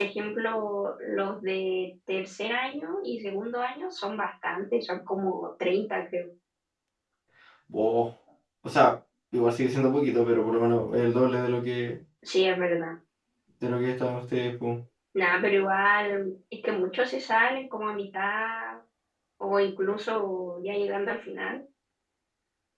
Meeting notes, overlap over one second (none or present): none